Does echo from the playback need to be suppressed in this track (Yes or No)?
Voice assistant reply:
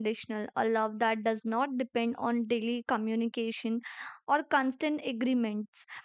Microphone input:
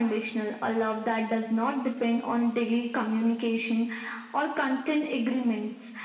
Yes